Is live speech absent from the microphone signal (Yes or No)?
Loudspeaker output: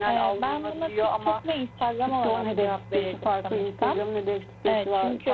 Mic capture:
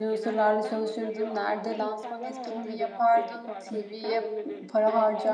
No